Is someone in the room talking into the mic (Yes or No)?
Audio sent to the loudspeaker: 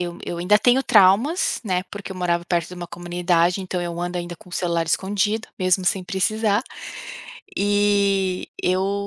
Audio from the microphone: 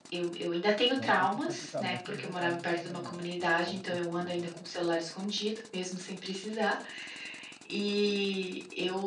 Yes